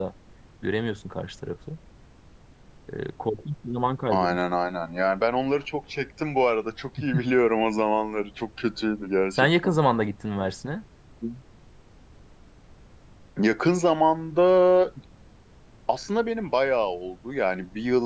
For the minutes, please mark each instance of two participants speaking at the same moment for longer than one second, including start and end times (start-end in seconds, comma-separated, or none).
none